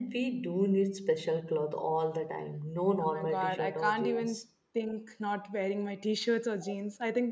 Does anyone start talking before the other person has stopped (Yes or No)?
Yes